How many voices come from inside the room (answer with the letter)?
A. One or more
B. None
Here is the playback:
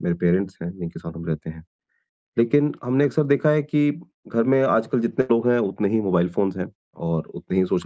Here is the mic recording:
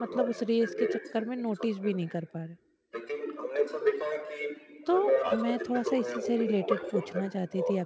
A